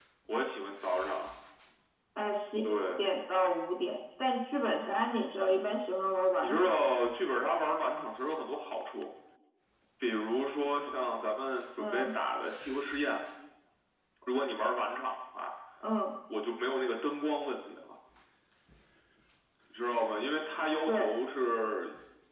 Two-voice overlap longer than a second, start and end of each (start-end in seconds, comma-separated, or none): none